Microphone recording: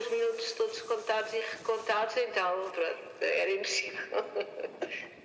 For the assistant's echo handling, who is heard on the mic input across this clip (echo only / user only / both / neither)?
echo only